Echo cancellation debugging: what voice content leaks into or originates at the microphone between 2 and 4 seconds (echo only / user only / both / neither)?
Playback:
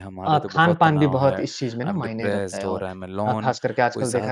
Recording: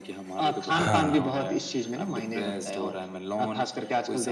echo only